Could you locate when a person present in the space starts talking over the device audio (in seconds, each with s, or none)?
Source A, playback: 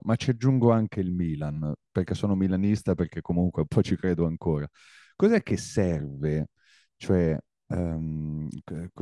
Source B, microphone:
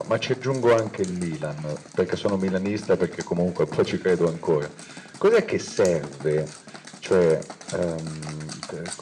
none